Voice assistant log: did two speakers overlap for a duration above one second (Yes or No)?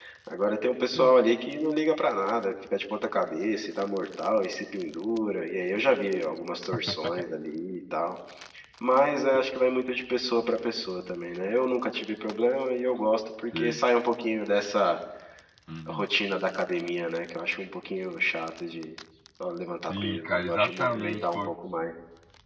Yes